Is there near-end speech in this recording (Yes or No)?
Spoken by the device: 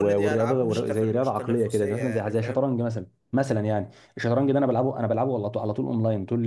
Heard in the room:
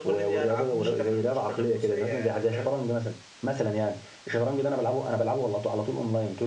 No